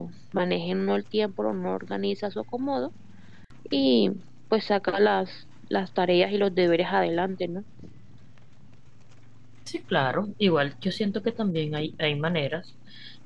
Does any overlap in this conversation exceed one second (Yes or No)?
No